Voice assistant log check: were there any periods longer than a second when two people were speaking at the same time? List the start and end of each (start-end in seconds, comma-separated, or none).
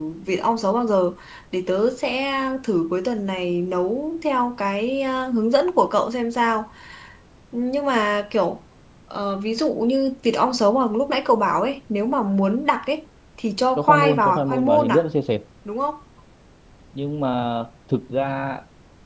13.8-15.0